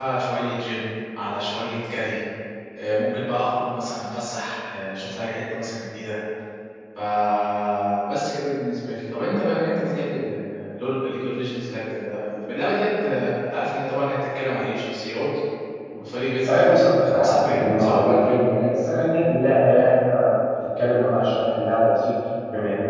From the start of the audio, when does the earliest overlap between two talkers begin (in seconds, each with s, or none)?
16.5 s